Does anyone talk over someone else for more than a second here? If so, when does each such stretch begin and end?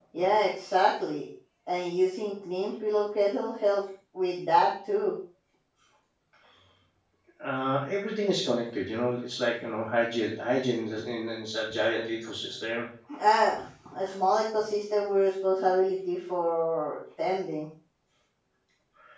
none

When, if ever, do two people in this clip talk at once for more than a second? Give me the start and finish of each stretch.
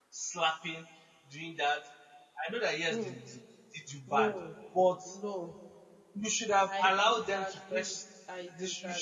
6.7-8.0

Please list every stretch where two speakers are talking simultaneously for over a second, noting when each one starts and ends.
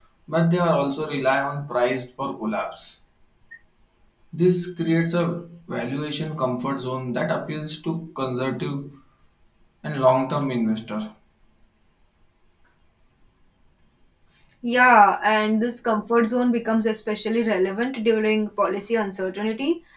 none

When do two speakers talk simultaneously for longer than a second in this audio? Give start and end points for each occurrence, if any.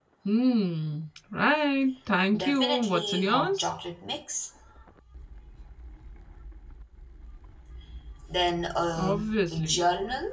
2.4-3.7

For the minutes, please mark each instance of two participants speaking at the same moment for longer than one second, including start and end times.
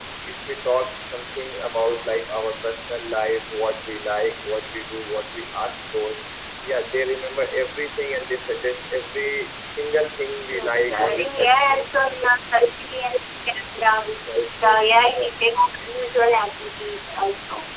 10.6-11.9

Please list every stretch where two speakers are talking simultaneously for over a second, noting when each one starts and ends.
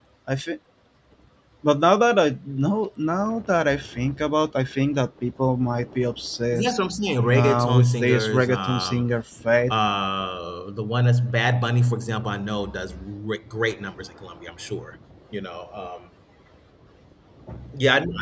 7.3-9.0

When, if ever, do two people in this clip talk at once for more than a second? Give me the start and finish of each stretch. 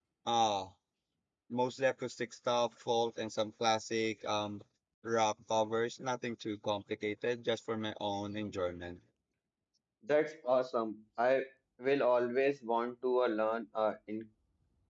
none

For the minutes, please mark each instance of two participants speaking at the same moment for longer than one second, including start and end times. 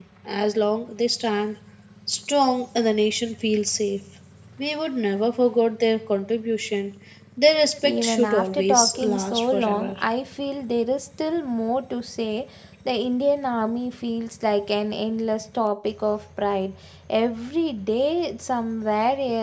7.9-9.9

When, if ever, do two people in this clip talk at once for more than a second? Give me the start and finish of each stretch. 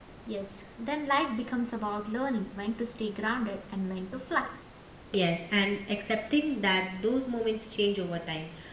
none

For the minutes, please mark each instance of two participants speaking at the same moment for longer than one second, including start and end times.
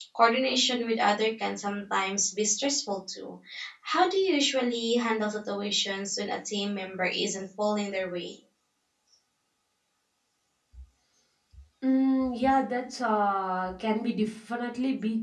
none

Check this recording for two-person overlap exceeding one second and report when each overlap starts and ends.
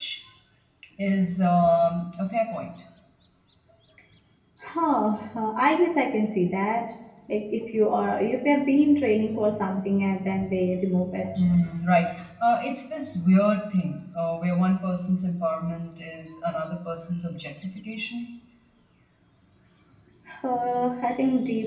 none

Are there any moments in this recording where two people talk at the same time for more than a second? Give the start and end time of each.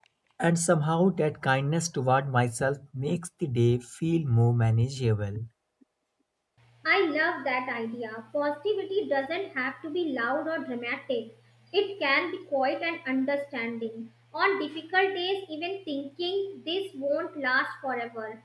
none

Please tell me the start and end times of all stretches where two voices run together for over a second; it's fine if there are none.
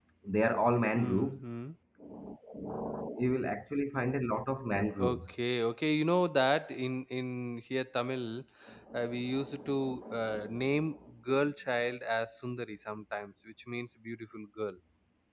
none

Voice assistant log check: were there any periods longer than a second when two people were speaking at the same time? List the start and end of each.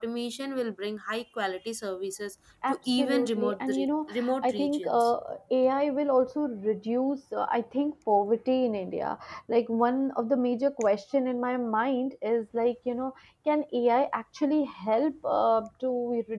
2.7-5.1

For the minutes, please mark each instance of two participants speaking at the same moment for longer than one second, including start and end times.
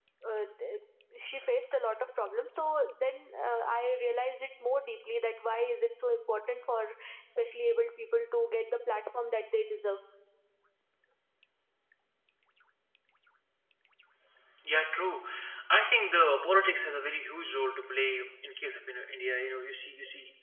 none

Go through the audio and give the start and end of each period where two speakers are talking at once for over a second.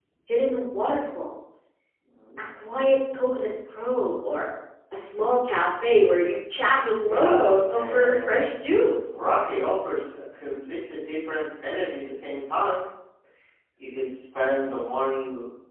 7.1-8.6

